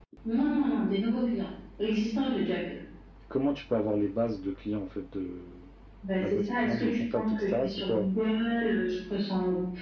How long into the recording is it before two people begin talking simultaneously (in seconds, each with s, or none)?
6.2 s